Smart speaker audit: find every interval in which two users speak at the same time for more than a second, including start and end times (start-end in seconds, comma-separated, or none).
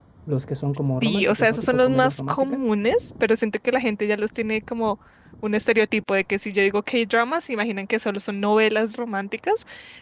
1.0-2.6